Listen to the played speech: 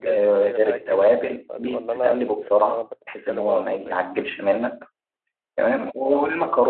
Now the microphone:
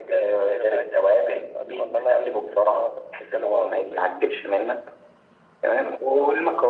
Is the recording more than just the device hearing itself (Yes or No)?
No